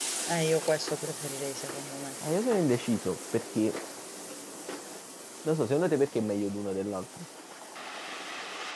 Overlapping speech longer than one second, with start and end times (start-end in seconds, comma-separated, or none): none